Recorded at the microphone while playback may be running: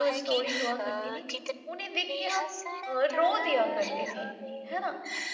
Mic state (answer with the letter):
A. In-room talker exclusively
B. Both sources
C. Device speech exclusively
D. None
B